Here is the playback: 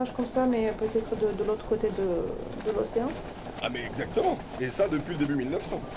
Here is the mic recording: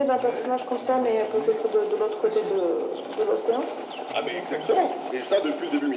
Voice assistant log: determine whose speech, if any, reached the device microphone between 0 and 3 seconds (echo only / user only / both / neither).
both